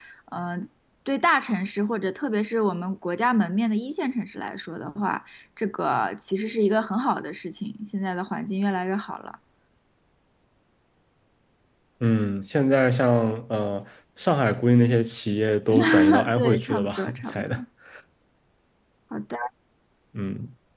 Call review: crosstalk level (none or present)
present